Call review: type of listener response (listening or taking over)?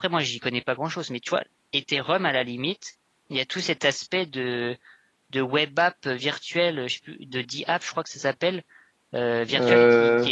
listening